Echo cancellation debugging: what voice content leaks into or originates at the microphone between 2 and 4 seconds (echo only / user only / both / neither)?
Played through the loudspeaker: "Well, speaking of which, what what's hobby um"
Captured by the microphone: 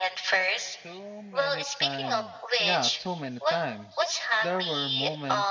both